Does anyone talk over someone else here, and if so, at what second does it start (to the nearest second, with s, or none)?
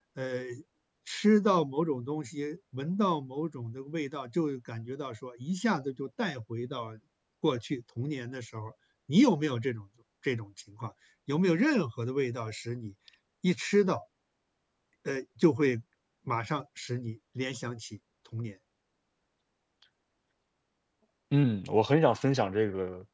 none